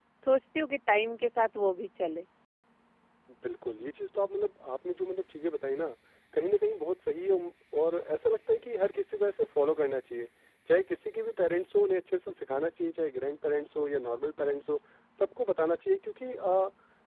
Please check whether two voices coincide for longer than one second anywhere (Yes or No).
No